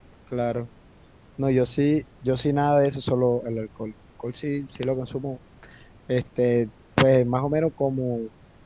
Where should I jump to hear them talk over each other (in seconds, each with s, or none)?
none